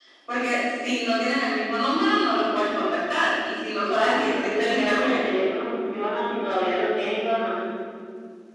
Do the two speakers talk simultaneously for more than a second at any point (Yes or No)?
Yes